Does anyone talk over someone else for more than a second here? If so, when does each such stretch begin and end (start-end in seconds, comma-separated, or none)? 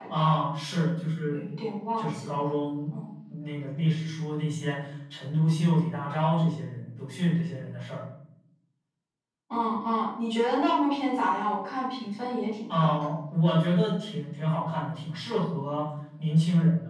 none